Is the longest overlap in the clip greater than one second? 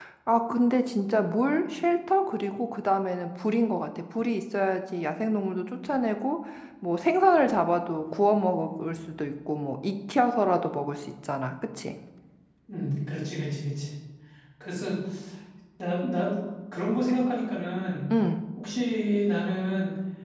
No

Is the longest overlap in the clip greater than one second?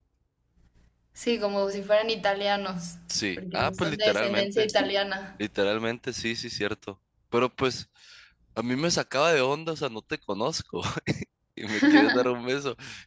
Yes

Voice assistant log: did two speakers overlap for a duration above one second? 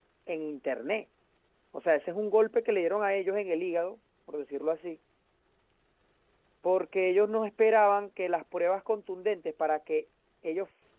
No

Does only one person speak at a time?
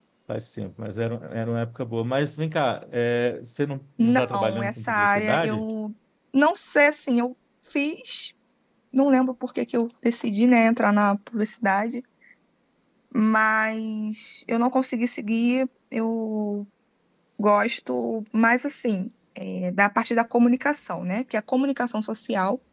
No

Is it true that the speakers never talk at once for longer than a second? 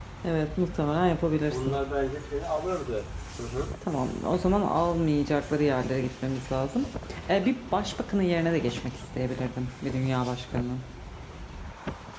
Yes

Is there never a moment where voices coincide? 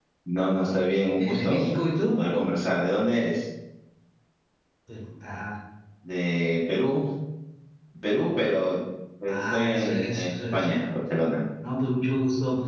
No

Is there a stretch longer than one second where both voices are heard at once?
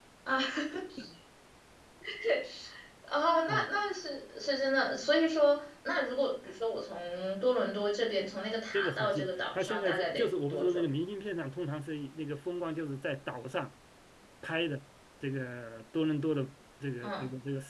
Yes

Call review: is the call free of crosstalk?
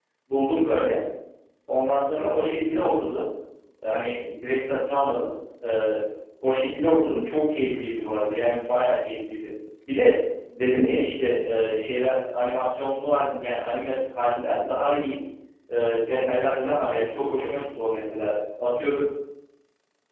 No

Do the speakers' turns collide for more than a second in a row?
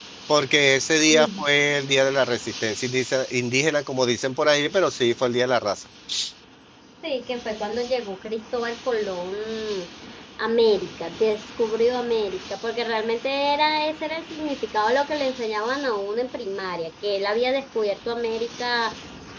No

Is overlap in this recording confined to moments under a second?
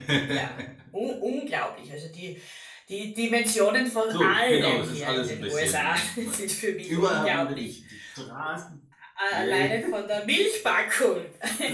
No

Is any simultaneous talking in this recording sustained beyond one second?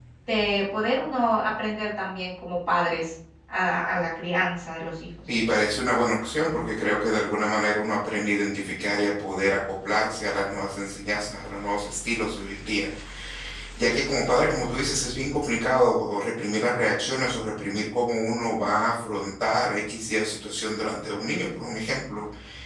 No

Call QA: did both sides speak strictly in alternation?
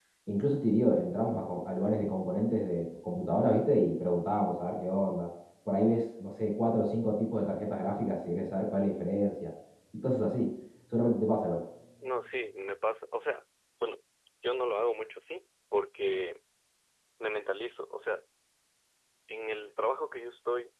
Yes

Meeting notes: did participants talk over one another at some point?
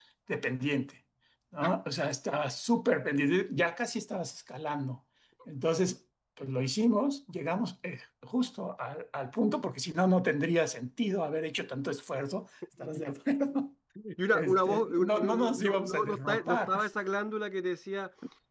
Yes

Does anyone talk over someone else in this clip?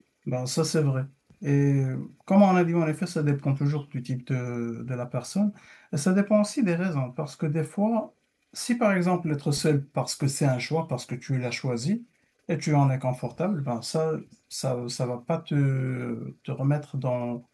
No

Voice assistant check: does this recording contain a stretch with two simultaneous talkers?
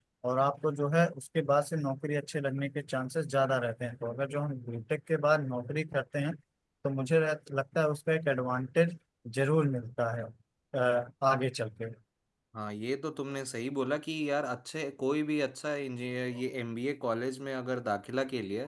No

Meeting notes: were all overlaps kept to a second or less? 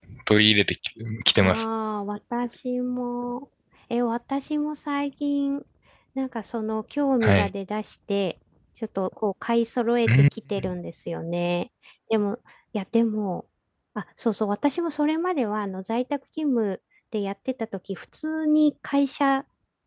Yes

